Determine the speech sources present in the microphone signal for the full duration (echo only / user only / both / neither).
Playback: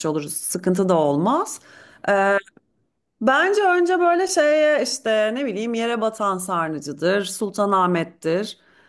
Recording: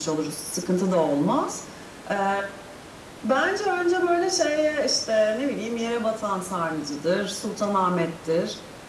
echo only